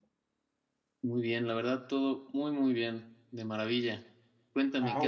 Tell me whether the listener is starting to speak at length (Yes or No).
Yes